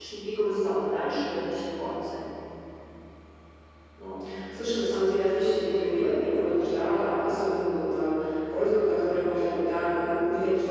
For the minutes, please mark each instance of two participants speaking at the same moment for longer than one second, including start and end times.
none

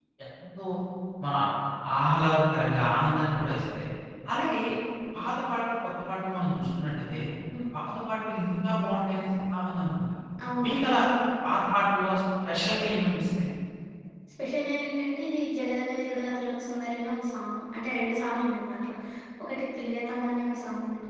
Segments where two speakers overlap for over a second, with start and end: none

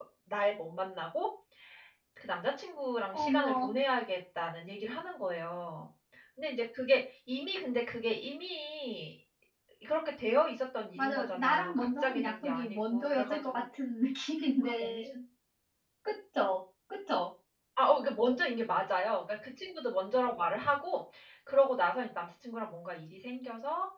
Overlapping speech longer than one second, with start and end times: 11.0-13.6

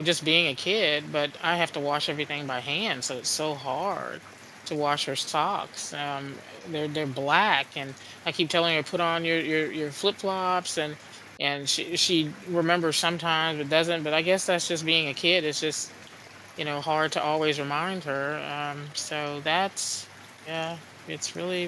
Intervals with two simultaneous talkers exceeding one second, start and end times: none

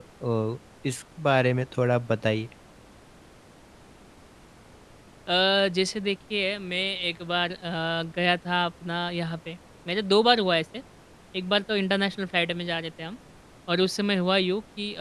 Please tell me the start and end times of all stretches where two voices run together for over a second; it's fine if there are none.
none

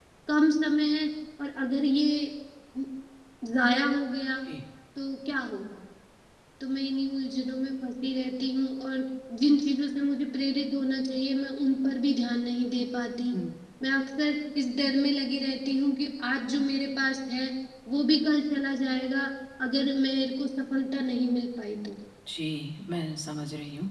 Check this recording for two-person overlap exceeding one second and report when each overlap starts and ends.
none

